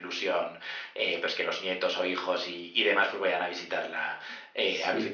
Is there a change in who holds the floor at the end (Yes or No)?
No